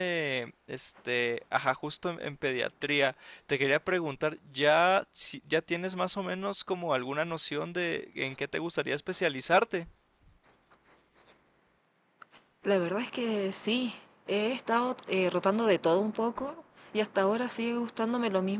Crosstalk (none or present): none